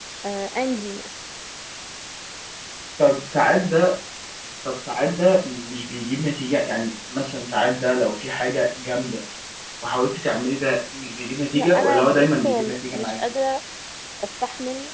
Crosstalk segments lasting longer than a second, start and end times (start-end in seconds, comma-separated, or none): 11.5-13.2